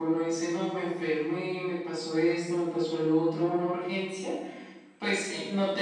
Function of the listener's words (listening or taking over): listening